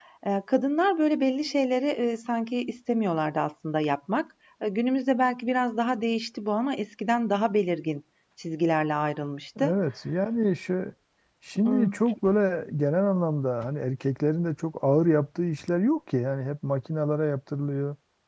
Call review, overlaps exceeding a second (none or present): none